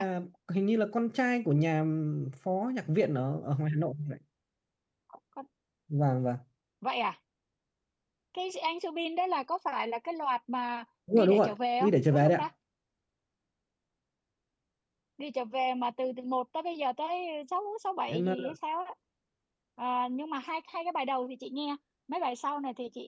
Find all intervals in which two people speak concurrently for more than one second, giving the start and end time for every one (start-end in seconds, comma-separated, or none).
11.1-12.5